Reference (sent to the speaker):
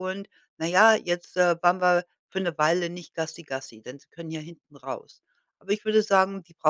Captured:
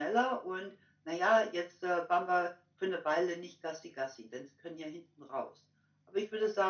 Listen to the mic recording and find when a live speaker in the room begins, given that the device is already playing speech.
none

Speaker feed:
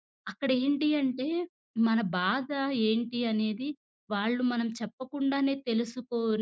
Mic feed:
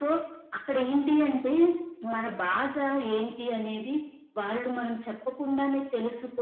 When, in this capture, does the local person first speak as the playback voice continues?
none

